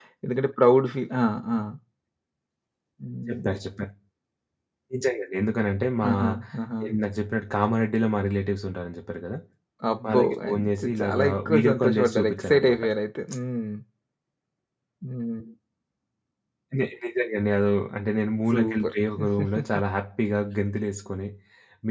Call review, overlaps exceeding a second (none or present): present